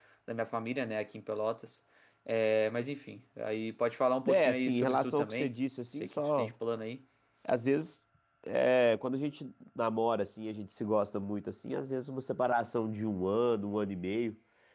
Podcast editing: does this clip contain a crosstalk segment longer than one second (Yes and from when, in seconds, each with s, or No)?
Yes, from 4.3 s